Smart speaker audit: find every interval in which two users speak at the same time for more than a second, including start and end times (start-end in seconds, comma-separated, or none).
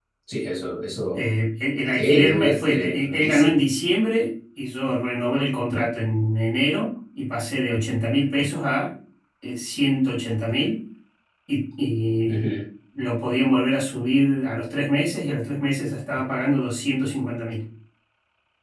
1.9-3.6